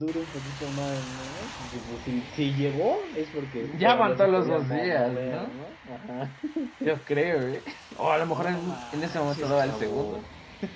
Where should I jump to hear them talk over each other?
3.6 s

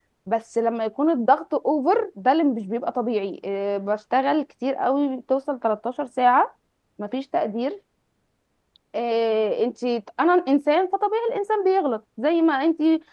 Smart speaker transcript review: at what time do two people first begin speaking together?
none

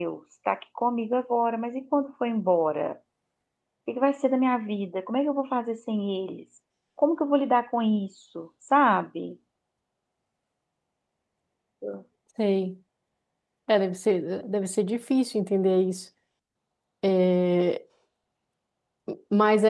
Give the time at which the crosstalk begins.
none

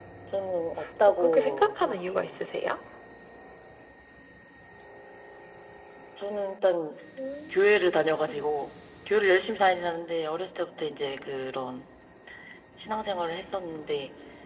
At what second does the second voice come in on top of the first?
1.1 s

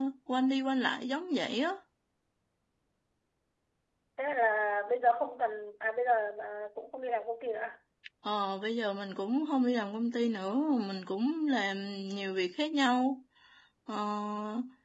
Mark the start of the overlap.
none

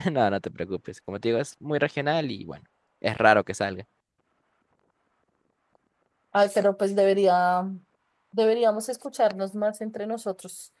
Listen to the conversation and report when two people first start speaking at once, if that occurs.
none

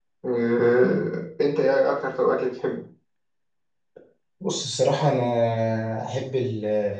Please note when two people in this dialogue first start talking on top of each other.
none

